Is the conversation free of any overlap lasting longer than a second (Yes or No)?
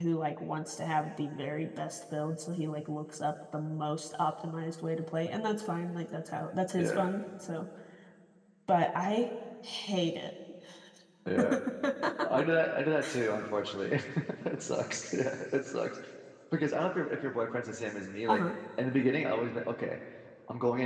Yes